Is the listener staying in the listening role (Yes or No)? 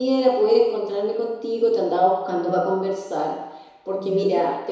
Yes